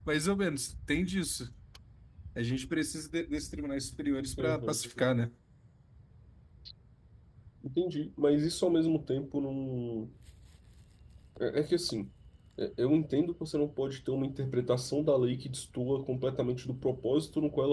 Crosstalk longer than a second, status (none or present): none